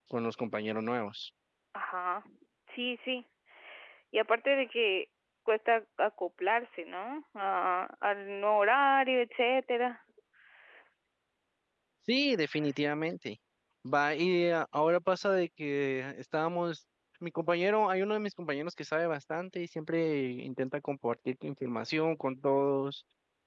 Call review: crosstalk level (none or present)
none